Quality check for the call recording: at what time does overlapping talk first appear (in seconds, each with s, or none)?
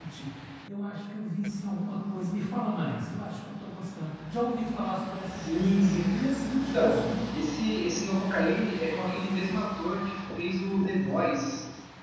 5.3 s